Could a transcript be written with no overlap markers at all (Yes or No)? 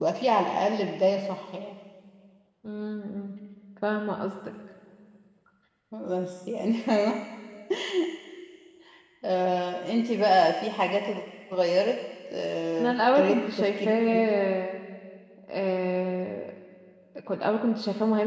No